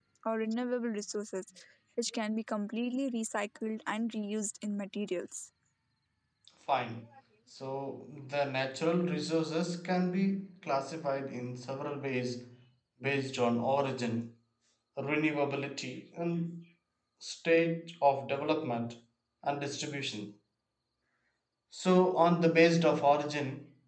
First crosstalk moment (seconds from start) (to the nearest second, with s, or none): none